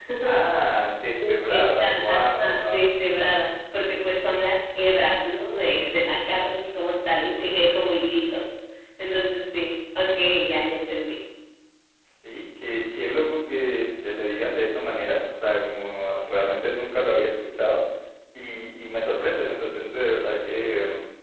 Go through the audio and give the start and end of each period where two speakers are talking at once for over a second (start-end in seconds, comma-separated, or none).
1.1-2.9